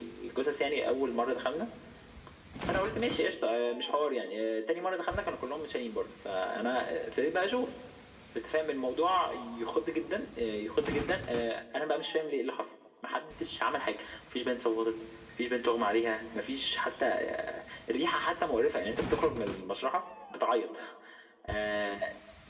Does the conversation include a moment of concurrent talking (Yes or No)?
No